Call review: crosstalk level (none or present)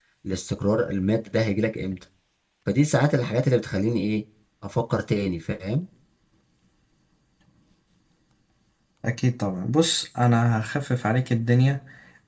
none